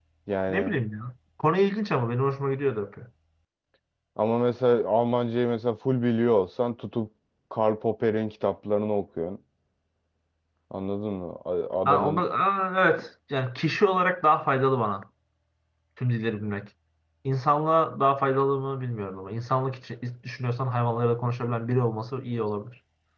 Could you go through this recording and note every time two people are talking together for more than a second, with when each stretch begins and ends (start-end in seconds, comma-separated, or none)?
none